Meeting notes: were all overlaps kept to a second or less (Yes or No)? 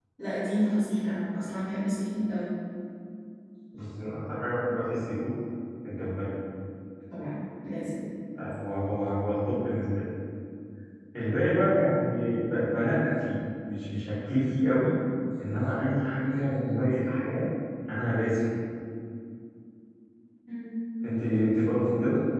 Yes